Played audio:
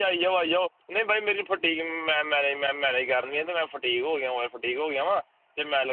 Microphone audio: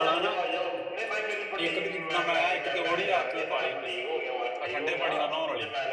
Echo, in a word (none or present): present